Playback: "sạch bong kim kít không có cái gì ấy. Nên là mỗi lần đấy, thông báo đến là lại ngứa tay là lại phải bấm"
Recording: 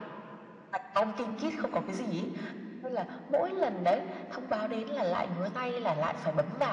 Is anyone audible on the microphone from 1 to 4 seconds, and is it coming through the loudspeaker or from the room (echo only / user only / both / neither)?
echo only